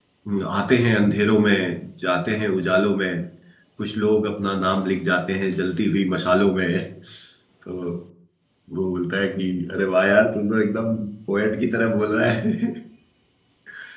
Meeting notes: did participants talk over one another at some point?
No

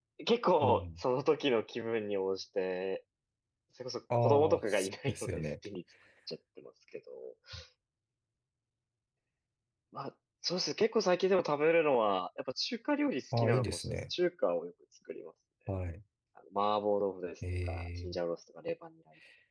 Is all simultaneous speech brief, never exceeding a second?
No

